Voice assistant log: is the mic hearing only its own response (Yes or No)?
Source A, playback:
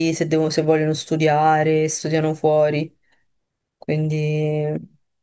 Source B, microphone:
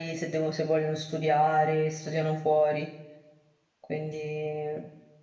Yes